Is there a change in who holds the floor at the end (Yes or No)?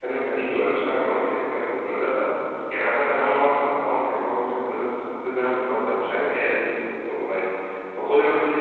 No